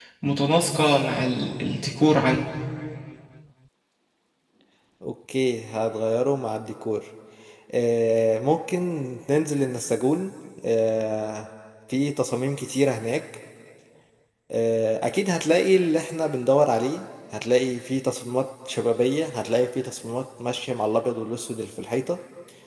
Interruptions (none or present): none